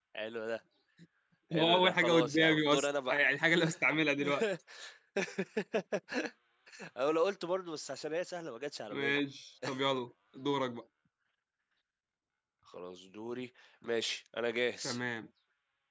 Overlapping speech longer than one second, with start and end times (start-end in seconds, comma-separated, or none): 1.5-3.1